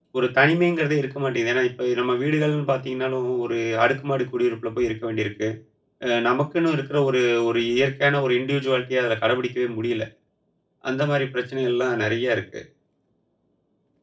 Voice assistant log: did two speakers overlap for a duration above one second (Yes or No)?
No